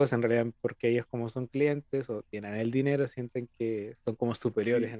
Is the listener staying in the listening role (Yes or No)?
No